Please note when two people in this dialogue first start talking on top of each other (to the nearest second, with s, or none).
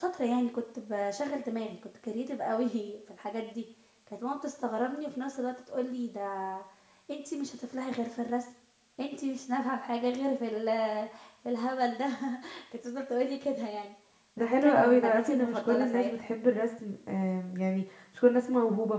14 s